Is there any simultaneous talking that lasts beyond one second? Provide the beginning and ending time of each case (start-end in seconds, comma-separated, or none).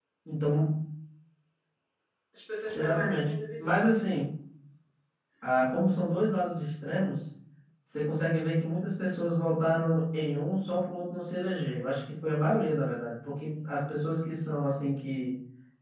2.7-4.0